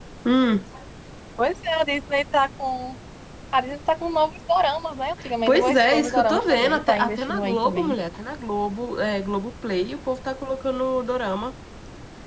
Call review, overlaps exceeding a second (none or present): present